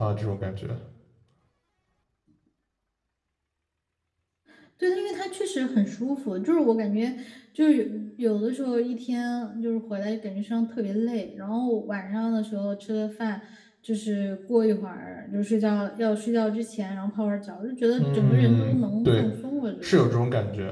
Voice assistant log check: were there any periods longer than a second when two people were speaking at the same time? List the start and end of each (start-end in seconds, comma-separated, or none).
18.0-19.3